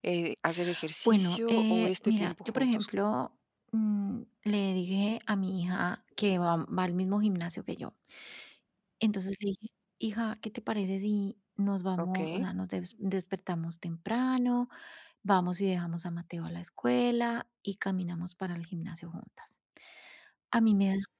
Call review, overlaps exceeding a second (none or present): present